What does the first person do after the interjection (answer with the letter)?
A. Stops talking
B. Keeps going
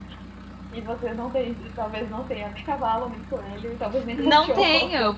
A